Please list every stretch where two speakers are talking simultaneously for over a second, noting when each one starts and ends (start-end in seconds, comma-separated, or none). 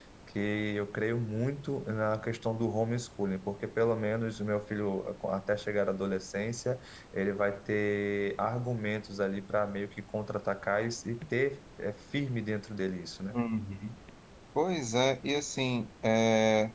none